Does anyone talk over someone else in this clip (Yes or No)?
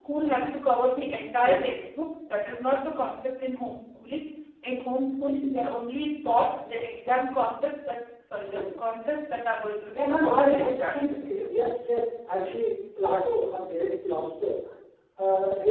Yes